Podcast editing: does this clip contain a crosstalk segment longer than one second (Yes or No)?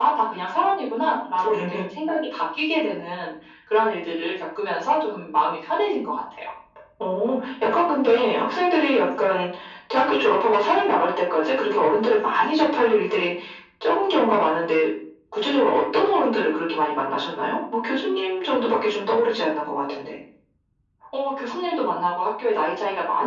No